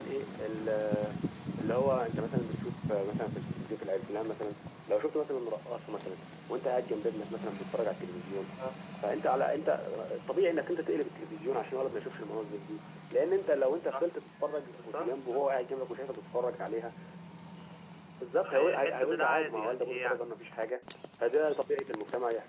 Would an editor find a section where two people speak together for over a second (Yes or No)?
Yes